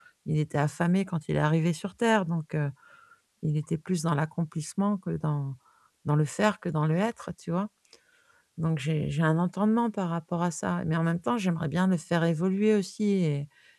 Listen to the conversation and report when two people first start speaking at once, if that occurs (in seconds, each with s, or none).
none